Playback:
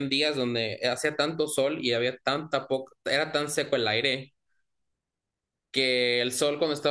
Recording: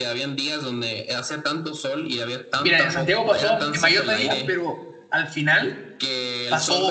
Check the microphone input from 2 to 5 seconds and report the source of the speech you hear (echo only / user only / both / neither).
both